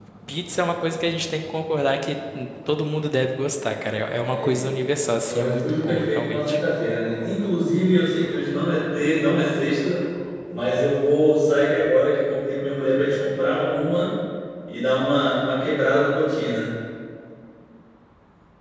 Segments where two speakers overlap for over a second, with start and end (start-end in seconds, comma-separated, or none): 4.3-6.6